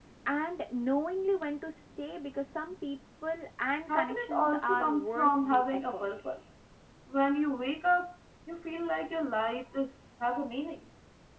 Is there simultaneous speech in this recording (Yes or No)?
Yes